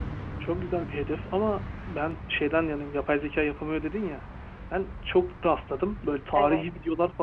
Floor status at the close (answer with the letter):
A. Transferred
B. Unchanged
B